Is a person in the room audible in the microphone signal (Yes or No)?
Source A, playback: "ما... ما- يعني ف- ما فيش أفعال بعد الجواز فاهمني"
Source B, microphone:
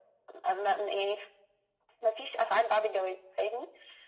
No